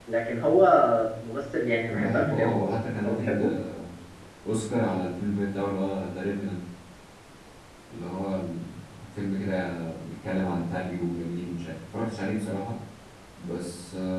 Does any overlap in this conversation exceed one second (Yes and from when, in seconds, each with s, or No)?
Yes, from 1.9 s